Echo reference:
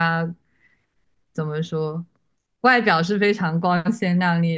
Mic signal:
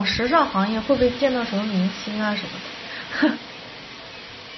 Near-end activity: present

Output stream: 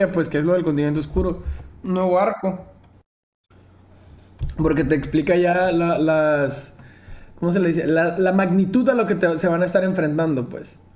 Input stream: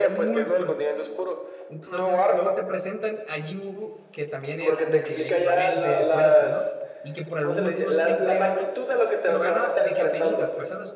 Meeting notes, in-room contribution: present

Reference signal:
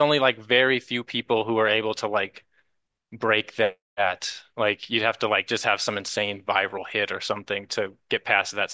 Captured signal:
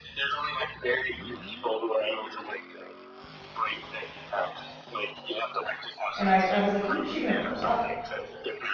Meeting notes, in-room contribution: present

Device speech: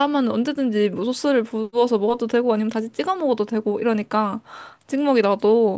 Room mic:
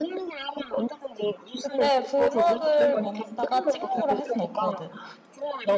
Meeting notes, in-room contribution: present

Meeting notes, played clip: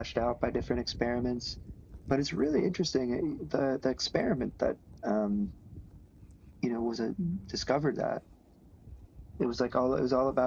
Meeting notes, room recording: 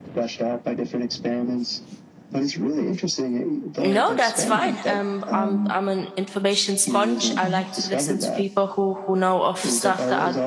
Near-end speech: present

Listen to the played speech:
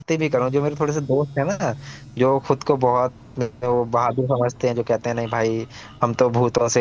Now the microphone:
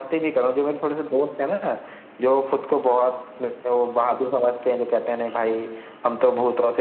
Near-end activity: none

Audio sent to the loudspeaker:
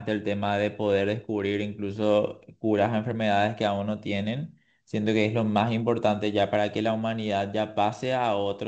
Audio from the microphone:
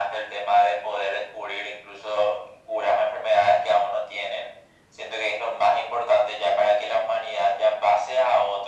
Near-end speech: none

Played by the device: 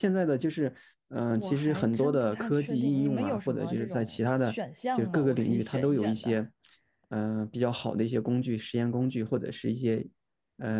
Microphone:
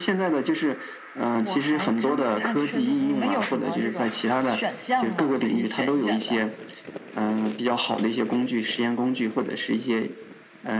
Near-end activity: none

